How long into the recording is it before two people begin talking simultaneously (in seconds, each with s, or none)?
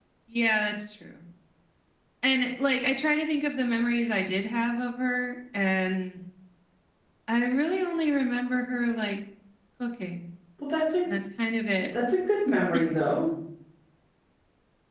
none